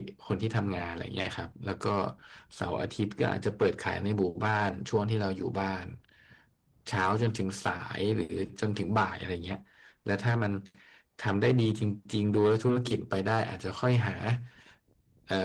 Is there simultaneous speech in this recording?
No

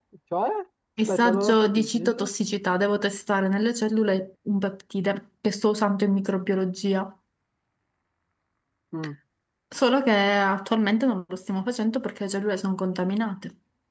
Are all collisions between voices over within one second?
No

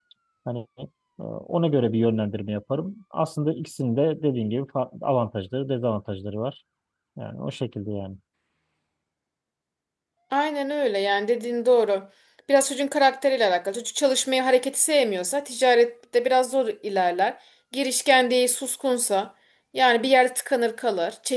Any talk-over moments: No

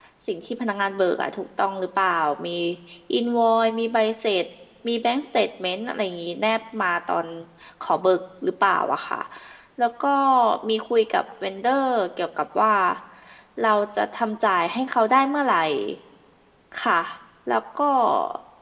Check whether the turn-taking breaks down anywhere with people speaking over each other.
No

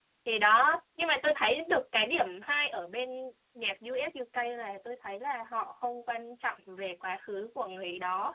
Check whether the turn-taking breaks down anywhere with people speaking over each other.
No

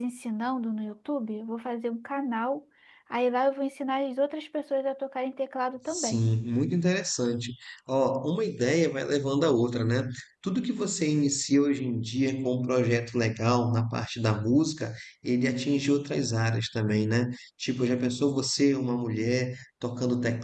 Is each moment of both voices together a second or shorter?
Yes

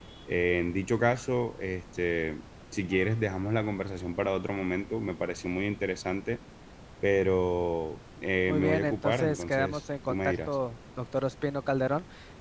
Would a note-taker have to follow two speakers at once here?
Yes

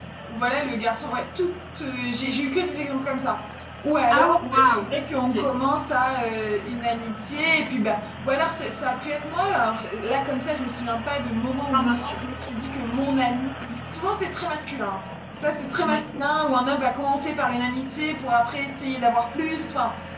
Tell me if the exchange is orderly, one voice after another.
No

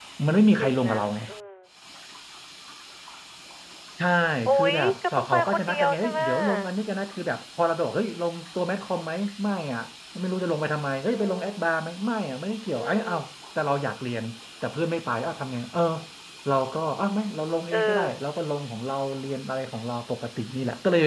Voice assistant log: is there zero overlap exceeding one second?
No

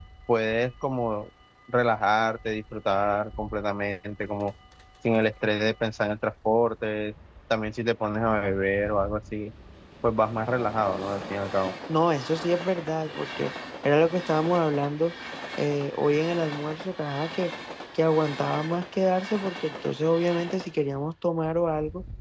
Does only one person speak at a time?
Yes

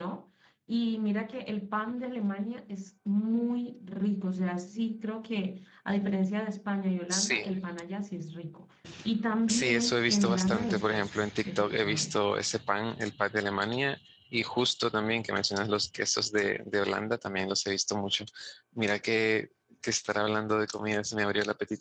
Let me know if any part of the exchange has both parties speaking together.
Yes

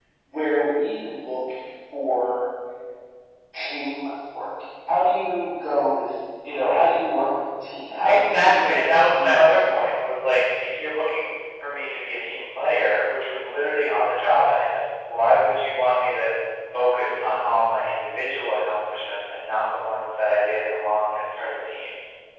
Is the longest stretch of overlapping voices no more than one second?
No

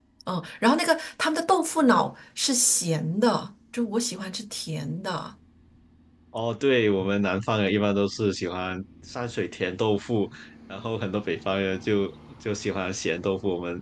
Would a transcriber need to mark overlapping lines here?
No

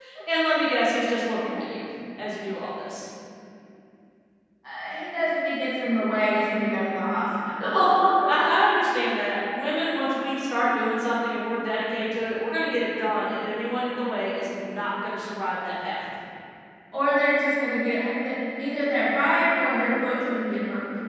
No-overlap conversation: Yes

